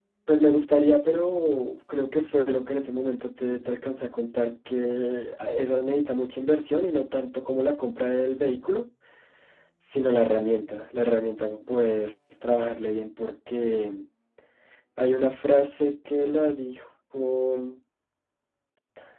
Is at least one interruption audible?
No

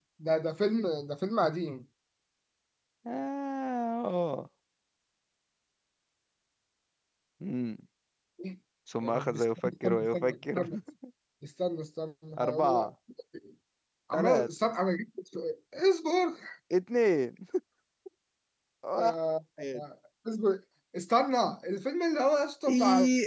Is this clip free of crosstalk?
No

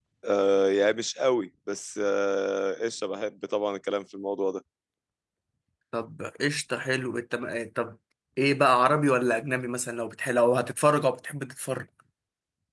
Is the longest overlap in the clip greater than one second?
No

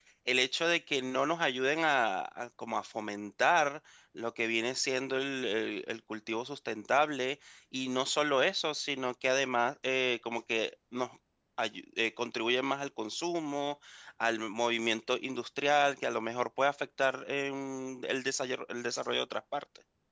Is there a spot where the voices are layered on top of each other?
No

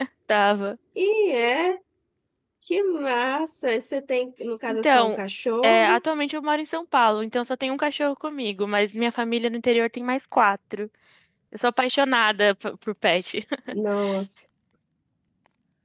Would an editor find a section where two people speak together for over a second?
No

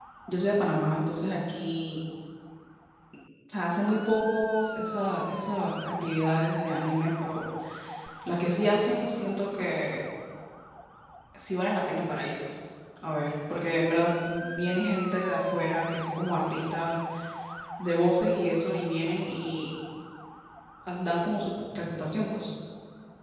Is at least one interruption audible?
No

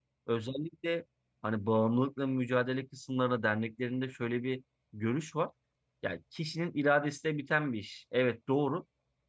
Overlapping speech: No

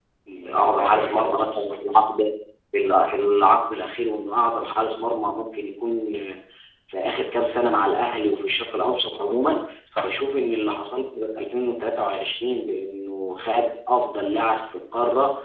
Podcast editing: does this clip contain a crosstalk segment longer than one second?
Yes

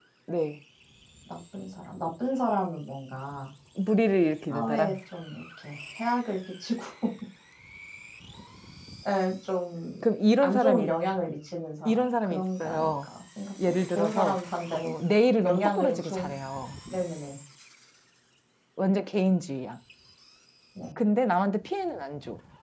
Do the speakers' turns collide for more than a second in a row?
Yes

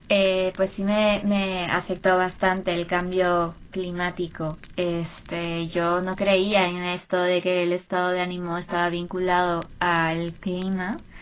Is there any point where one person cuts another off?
No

